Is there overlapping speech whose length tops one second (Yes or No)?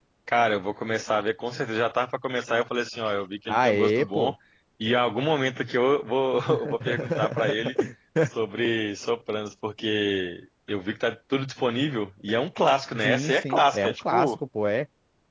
Yes